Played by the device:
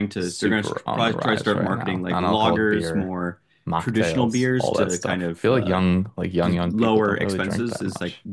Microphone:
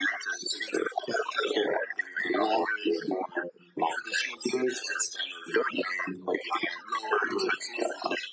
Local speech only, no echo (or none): none